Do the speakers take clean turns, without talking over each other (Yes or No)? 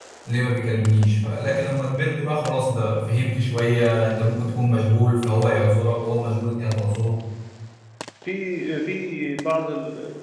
Yes